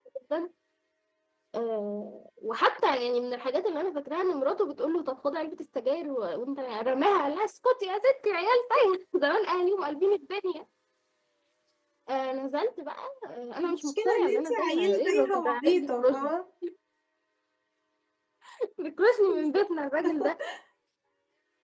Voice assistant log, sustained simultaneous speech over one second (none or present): present